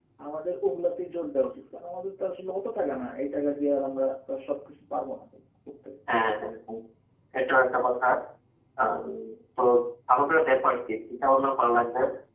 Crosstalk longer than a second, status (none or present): none